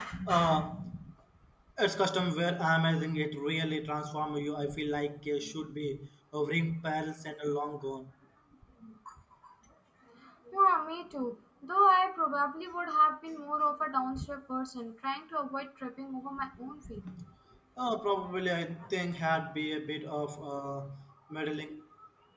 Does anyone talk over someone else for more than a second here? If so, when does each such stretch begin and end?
none

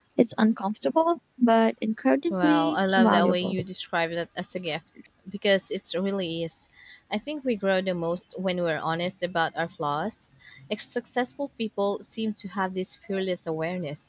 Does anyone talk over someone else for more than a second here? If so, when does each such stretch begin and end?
2.3-3.6

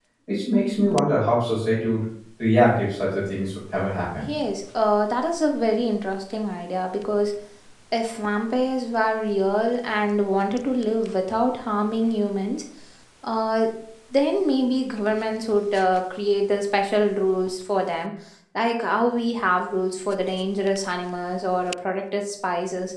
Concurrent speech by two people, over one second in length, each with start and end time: none

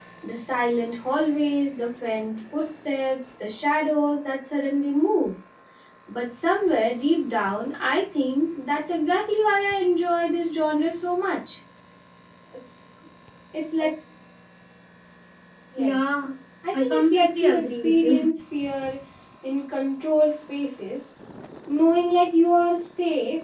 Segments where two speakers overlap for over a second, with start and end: 16.7-18.3

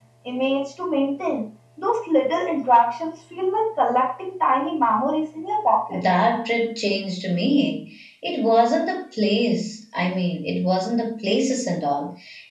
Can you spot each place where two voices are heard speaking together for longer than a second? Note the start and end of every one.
none

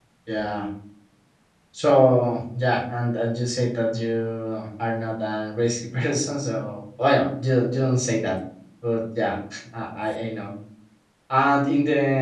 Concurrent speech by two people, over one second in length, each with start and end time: none

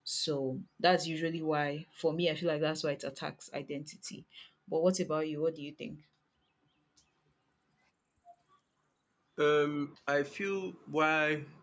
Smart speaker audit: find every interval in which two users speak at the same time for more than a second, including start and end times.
none

